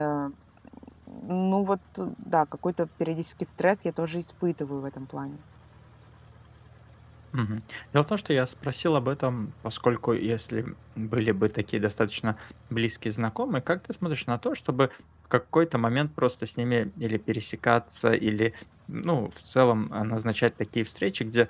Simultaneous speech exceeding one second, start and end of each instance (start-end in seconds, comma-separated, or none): none